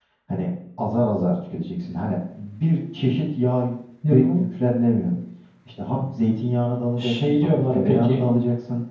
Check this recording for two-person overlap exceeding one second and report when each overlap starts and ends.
7.0-8.2

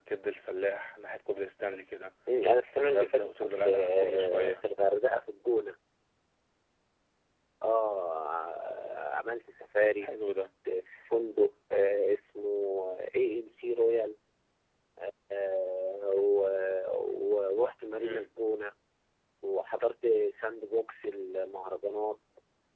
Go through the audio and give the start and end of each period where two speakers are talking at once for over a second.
2.7-4.6

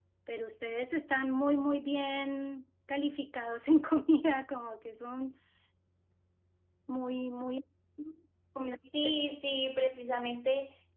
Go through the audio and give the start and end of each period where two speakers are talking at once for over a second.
none

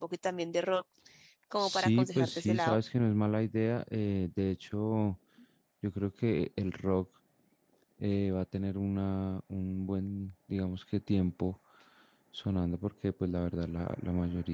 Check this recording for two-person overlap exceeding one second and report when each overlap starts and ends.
1.6-2.8

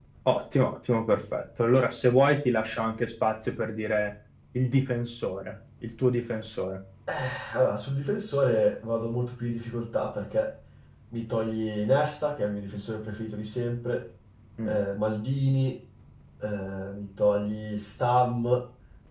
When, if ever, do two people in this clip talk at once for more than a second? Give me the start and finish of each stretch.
none

